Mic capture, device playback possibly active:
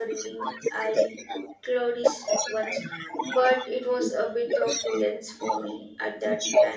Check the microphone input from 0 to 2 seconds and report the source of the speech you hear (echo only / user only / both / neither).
both